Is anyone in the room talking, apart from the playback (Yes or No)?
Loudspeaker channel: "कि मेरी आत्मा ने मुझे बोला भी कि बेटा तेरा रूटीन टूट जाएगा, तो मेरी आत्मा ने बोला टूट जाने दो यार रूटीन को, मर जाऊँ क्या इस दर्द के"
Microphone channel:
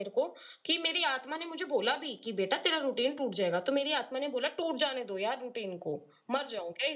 No